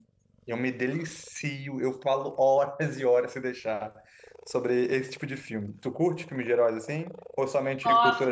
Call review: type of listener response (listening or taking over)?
taking over